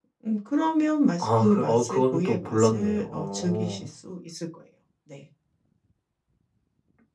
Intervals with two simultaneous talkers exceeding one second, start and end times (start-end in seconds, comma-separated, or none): 1.2-3.9